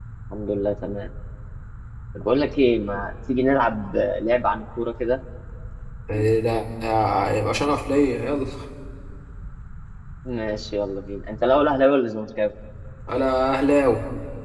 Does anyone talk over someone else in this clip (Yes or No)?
No